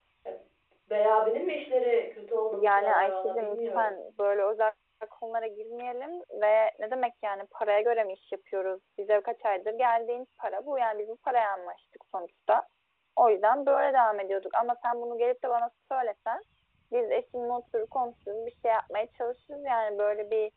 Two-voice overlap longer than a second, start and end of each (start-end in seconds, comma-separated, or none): 2.5-3.9